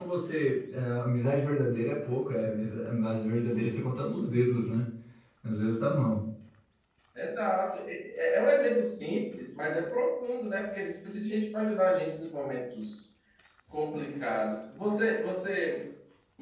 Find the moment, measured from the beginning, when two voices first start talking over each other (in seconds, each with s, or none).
none